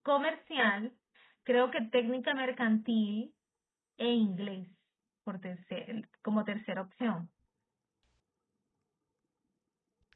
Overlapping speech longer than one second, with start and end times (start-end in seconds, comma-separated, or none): none